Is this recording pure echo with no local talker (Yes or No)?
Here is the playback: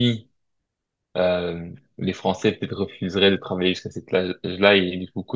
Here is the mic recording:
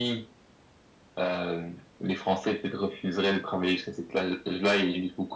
Yes